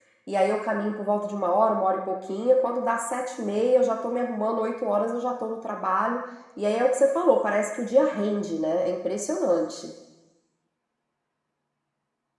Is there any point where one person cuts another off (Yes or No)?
No